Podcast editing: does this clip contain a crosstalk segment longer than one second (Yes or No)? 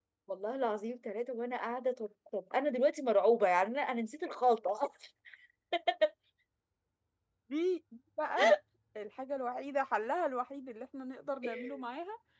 No